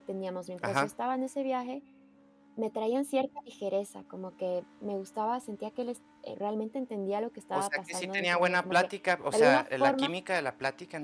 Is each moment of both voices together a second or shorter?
No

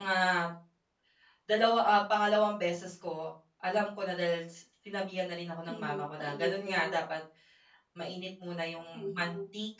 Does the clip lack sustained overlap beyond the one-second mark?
No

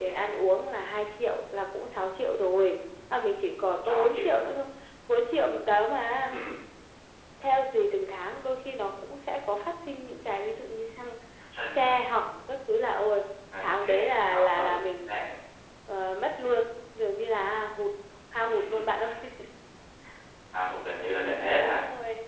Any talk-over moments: Yes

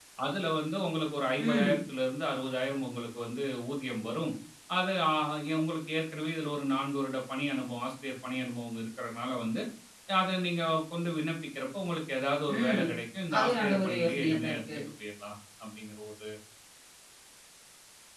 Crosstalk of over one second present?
Yes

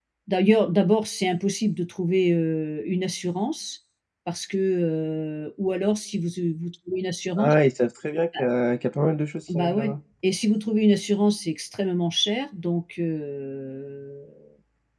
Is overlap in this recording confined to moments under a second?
Yes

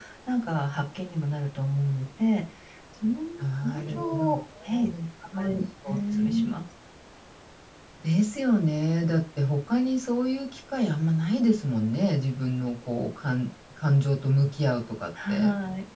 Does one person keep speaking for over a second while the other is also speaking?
Yes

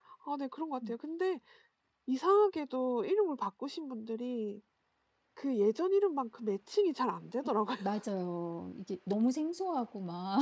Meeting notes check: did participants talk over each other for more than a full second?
No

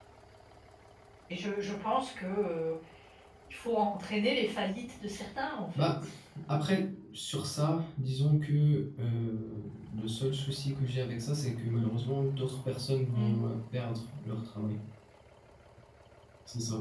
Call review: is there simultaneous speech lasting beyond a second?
No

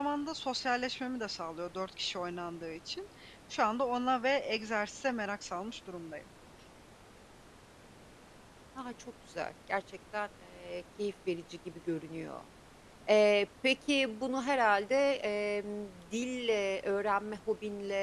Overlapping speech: No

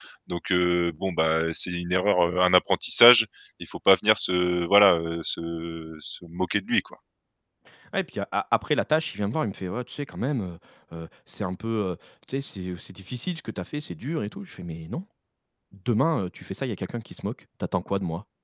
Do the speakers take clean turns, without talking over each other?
Yes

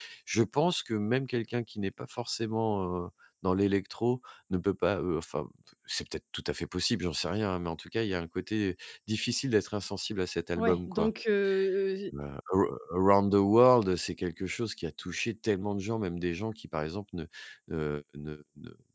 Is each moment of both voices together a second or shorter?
Yes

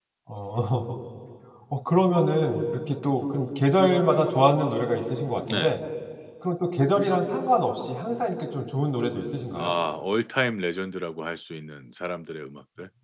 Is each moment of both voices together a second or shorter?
Yes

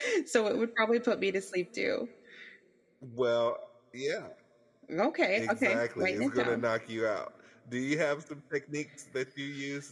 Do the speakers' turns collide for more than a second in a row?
Yes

